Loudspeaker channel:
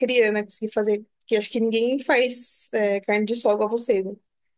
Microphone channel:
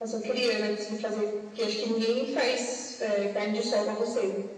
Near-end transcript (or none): none